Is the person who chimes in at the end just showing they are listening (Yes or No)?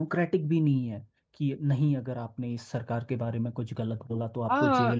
No